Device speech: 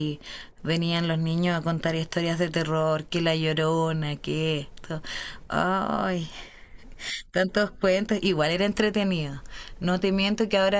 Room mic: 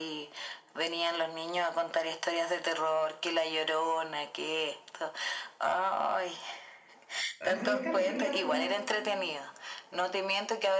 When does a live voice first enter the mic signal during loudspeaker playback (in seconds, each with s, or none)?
7.4 s